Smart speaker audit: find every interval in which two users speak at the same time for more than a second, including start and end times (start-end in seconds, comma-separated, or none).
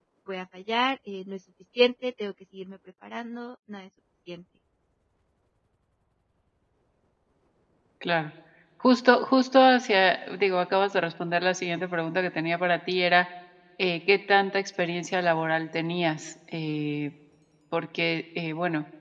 none